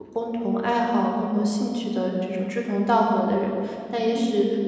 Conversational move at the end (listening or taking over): listening